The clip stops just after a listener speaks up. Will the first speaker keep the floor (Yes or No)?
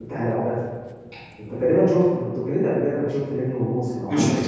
No